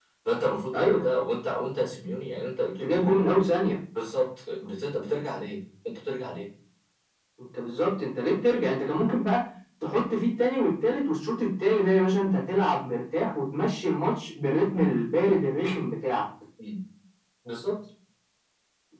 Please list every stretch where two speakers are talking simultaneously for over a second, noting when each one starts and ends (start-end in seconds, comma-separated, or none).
none